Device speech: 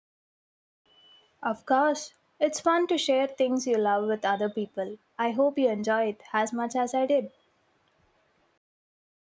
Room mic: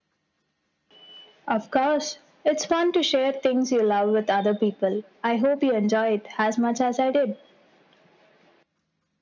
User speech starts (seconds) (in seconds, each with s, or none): none